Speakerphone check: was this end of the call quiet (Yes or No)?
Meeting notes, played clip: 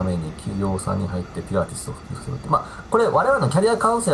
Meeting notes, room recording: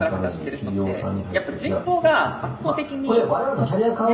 No